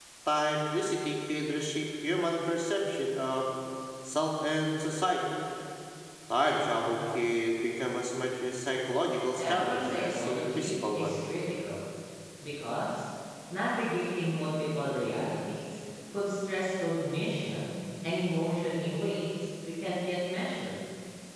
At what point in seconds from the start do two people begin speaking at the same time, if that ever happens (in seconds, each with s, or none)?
9.4 s